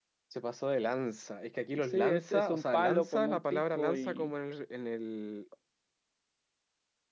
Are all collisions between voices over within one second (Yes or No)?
No